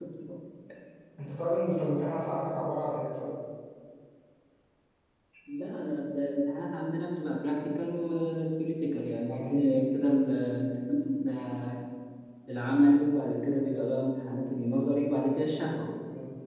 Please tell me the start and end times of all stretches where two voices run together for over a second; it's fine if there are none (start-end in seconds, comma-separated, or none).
none